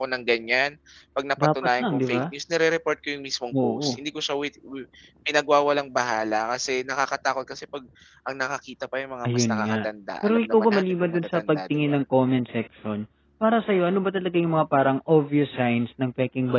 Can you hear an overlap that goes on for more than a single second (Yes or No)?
Yes